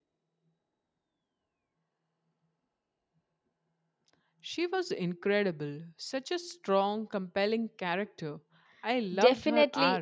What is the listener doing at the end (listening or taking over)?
taking over